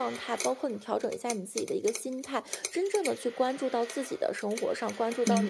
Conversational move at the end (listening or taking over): listening